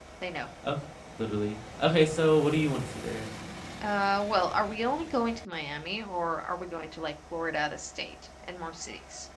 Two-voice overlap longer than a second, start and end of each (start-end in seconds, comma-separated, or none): none